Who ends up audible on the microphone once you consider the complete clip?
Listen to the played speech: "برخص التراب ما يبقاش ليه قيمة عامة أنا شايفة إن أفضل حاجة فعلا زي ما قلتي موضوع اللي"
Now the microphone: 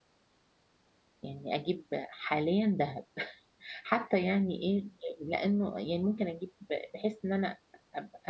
user only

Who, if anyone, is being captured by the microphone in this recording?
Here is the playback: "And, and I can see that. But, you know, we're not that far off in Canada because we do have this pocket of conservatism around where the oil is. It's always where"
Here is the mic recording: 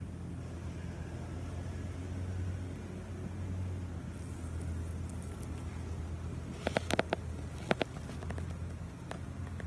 neither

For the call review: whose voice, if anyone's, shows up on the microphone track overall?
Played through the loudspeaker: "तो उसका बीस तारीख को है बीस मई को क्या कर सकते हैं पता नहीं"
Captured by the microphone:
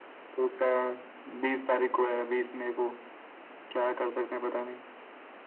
echo only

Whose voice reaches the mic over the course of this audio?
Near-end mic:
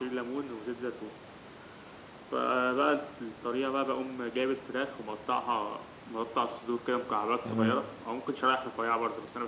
both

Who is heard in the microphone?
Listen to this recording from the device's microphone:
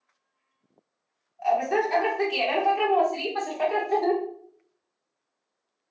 user only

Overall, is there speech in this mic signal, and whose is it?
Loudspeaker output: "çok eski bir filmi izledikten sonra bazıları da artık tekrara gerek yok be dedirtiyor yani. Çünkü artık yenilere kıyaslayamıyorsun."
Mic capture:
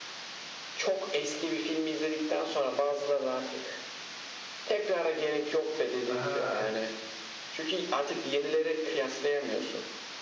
both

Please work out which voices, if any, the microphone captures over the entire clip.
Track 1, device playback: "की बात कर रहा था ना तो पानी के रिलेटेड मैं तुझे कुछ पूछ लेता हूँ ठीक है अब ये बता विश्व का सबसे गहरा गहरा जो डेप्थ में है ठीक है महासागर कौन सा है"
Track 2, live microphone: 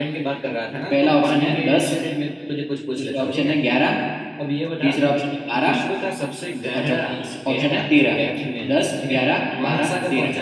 both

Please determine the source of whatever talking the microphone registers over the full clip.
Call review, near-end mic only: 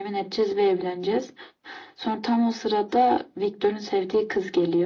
echo only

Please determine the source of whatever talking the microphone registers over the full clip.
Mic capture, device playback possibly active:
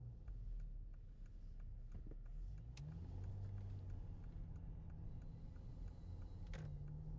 neither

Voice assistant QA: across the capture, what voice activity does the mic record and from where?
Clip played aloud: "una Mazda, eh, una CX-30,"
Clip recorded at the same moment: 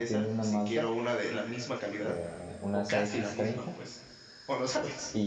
both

